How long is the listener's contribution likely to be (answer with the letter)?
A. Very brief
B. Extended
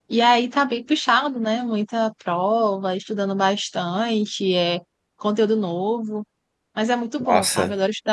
A